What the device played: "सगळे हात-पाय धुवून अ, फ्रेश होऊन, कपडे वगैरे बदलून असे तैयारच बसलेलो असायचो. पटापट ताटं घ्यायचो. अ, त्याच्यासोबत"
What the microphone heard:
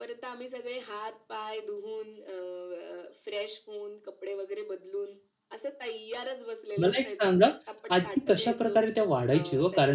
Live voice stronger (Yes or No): Yes